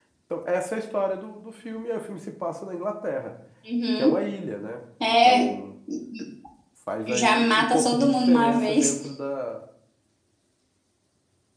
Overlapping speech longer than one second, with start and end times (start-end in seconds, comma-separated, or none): 7.1-8.9